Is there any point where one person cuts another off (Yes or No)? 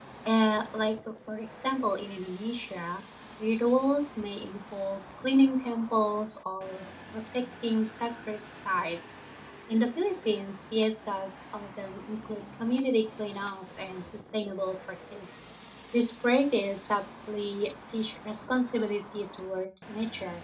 No